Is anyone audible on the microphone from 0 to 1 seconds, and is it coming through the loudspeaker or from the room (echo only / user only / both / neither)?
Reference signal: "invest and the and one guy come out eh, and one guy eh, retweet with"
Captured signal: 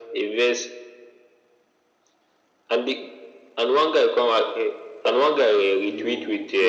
echo only